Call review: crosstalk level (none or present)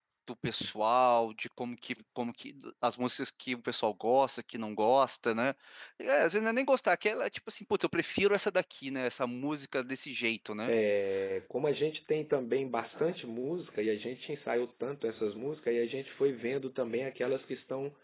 none